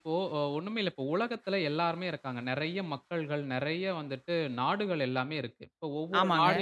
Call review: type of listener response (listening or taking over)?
listening